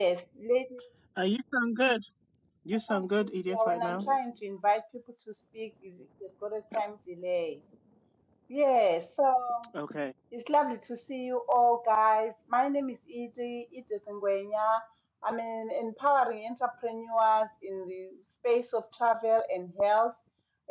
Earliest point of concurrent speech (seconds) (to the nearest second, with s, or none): 3 s